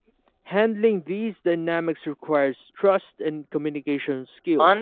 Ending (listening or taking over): taking over